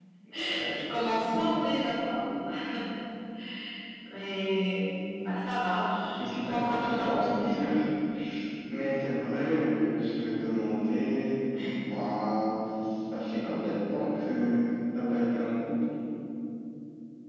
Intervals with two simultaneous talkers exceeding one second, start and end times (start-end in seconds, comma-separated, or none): 6.2-7.7